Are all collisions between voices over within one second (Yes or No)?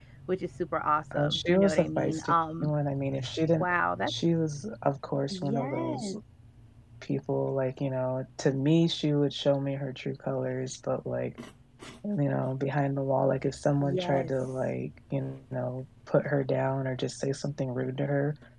No